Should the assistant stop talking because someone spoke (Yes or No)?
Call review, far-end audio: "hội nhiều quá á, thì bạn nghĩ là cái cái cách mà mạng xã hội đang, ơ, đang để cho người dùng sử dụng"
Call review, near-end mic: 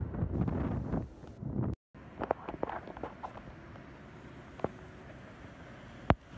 No